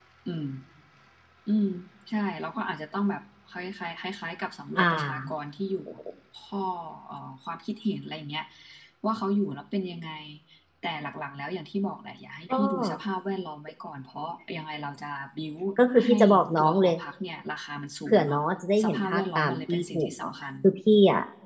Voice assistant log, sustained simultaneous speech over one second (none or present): present